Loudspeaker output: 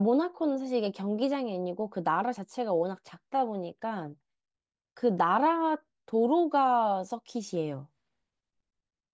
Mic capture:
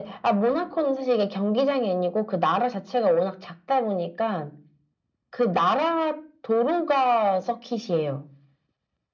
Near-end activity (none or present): none